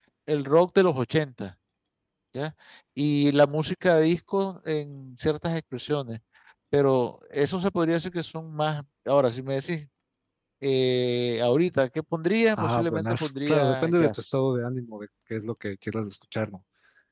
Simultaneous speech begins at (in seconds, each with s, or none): 12.6 s